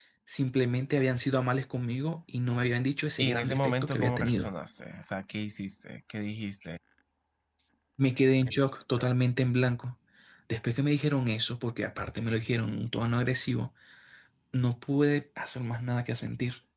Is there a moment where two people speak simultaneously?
Yes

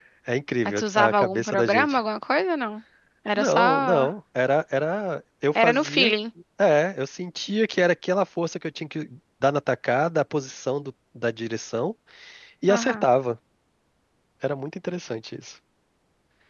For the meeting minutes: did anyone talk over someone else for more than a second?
Yes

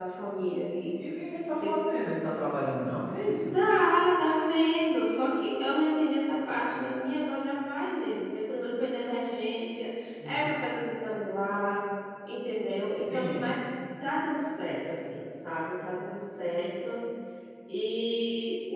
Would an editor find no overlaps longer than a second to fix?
Yes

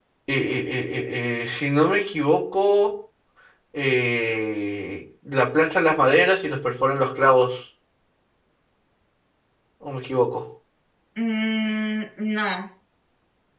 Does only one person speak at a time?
Yes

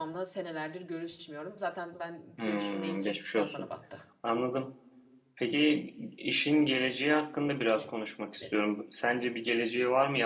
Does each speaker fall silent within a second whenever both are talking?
No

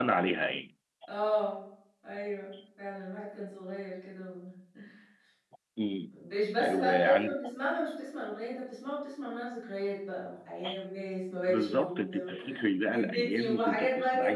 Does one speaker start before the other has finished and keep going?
Yes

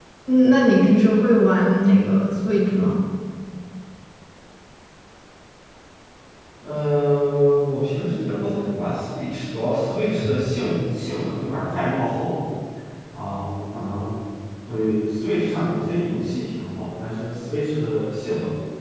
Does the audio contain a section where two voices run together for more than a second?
No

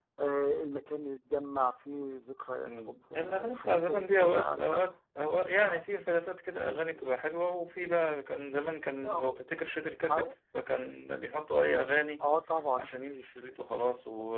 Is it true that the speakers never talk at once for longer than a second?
No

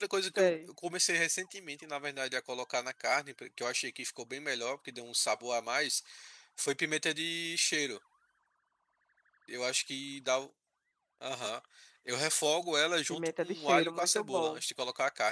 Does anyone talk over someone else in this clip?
Yes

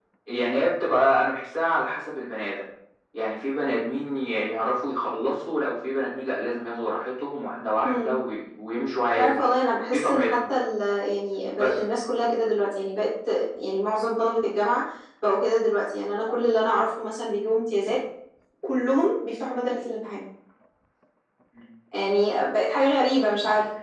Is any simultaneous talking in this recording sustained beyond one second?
No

